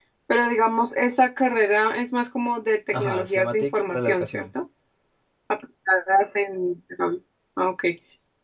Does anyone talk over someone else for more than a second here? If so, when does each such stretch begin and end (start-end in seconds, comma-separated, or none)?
2.9-4.5